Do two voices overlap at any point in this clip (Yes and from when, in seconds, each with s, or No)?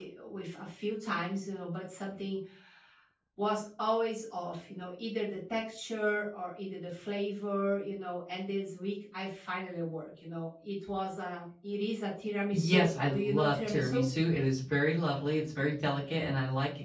Yes, from 12.5 s